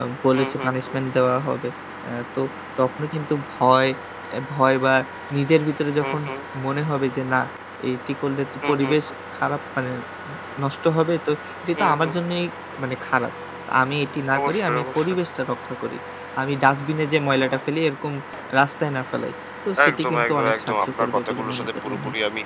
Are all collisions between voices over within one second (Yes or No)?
No